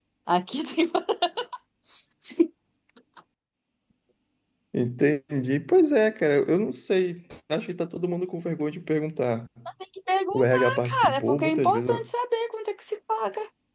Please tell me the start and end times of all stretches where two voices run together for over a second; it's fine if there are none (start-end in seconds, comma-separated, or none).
10.3-12.0